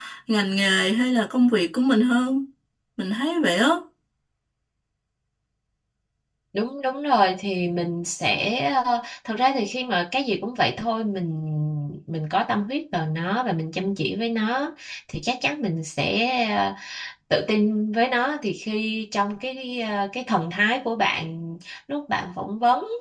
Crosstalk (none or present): none